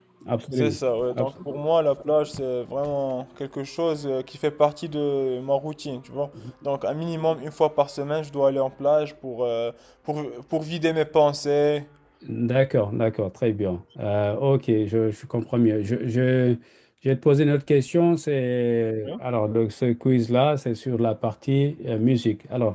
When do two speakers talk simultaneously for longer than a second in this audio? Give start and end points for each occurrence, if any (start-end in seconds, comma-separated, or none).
none